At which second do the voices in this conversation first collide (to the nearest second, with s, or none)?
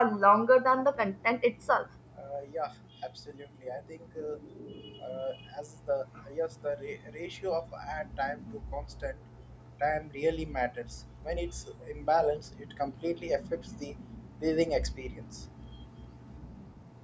none